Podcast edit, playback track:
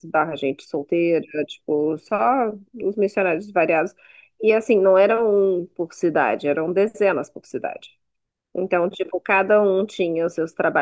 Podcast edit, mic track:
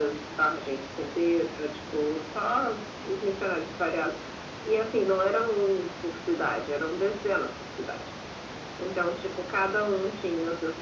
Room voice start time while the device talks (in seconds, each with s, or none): none